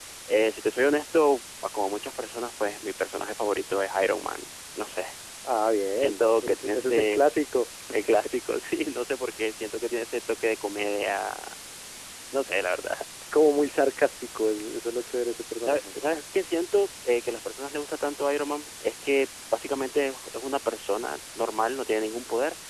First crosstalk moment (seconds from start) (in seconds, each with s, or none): 5.9 s